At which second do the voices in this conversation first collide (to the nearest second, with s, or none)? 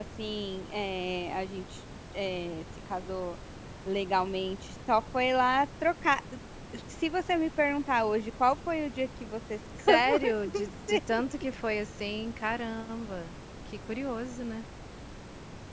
10 s